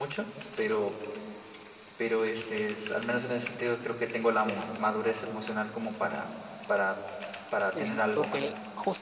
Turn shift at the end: Yes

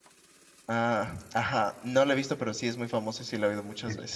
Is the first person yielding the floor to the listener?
Yes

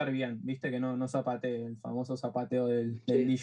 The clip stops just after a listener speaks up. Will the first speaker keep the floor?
Yes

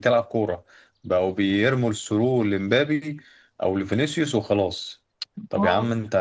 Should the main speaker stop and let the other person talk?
No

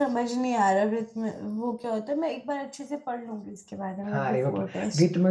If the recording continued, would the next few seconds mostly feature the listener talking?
Yes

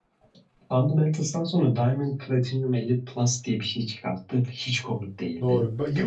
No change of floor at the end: No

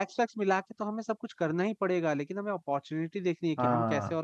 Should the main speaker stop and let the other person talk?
No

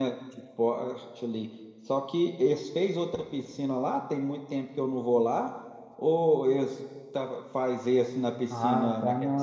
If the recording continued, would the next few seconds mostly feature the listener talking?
Yes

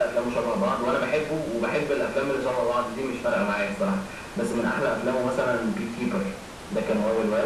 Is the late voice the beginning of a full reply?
Yes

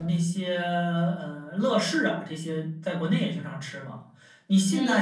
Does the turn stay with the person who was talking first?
Yes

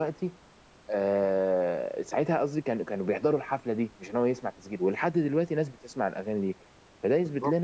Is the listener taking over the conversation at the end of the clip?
Yes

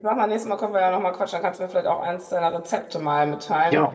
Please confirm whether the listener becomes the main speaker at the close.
Yes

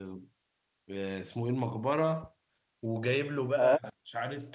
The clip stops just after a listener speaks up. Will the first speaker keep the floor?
Yes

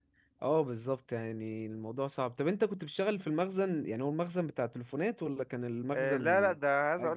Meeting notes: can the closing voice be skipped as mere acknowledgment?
No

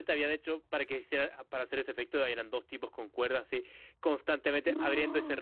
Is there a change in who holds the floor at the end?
No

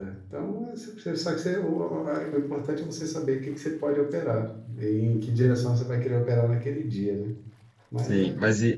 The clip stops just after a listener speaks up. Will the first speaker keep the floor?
No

